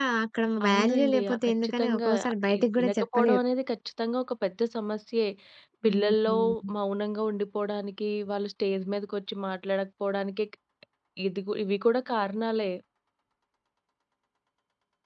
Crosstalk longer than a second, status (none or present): present